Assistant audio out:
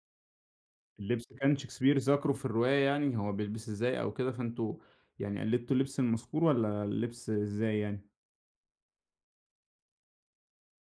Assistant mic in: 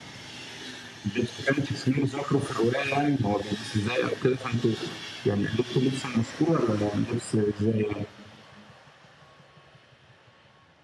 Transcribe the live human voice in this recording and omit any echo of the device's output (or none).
none